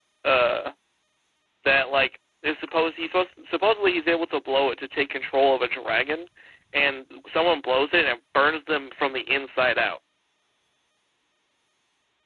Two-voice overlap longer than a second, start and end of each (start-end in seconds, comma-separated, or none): none